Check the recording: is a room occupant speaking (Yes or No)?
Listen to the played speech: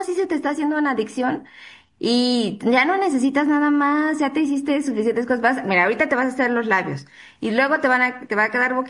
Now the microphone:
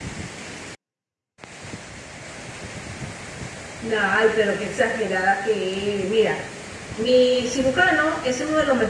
Yes